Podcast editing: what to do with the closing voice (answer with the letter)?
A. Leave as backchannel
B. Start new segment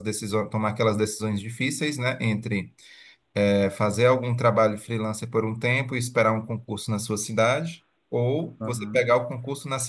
A